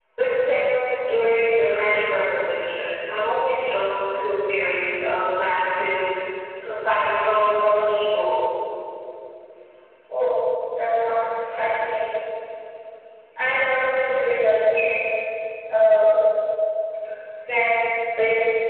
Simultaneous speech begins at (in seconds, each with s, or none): none